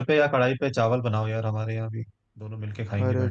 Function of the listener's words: taking over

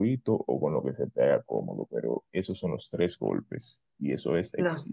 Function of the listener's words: listening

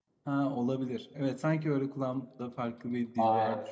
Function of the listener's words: taking over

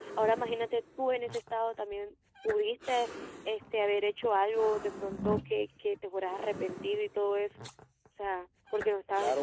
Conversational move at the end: taking over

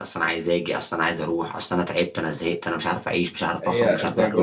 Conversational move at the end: taking over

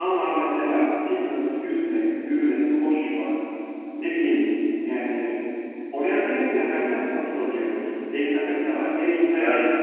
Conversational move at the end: listening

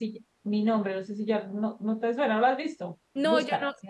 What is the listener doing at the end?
taking over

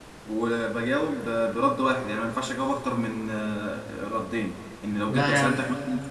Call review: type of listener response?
listening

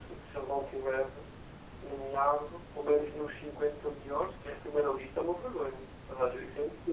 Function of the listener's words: taking over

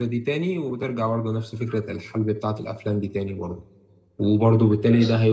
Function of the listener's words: listening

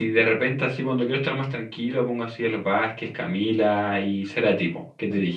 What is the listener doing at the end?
taking over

